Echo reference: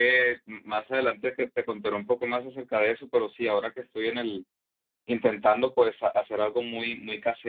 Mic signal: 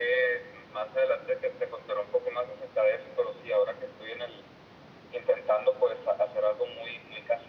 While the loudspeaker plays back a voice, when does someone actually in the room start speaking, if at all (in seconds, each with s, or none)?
none